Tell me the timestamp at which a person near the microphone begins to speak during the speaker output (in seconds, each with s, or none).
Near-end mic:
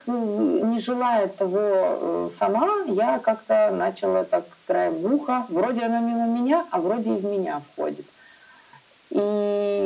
none